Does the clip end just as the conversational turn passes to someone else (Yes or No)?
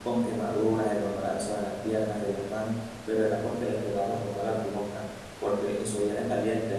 No